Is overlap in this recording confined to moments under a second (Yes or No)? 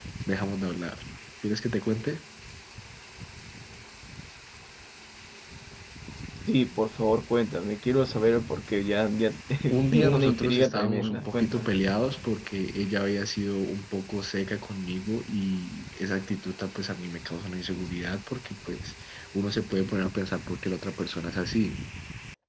No